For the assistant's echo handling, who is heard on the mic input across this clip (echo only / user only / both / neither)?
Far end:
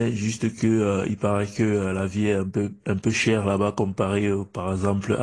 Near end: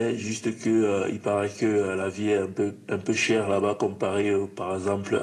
echo only